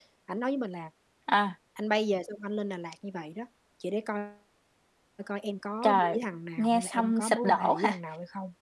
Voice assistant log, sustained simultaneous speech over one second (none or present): present